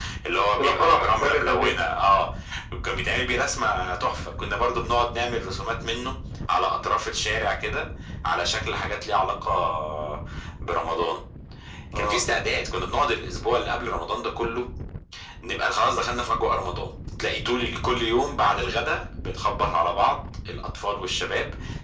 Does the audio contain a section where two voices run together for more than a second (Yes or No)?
Yes